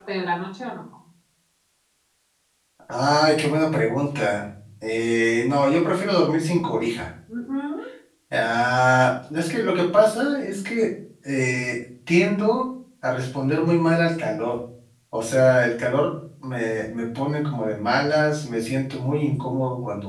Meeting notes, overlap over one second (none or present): none